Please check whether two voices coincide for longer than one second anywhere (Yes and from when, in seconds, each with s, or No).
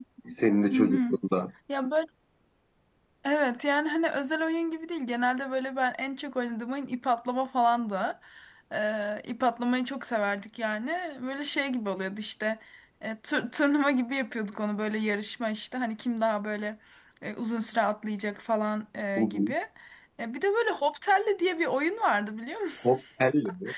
No